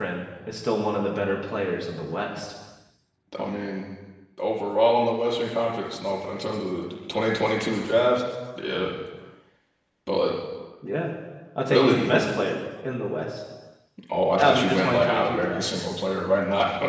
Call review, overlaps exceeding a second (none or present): present